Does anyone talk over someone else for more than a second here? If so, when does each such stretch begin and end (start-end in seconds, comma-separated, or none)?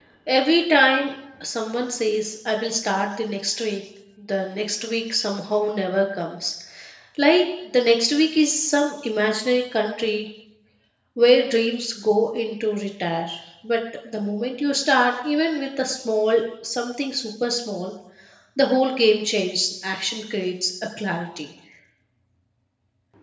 none